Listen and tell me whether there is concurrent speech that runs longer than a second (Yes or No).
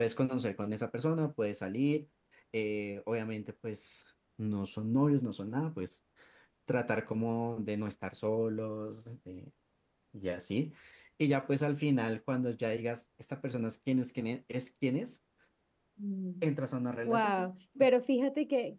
No